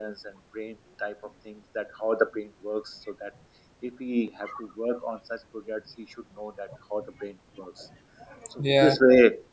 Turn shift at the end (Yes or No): No